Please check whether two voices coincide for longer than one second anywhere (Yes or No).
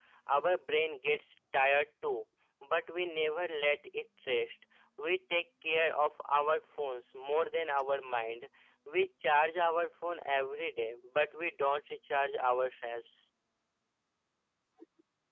No